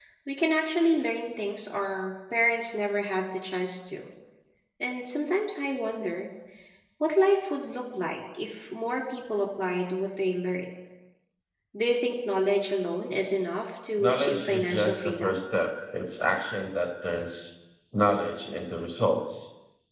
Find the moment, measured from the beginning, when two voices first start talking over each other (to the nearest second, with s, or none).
14 s